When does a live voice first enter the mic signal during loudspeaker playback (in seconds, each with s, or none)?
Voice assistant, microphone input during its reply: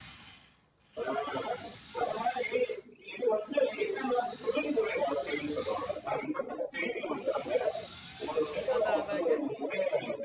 8.8 s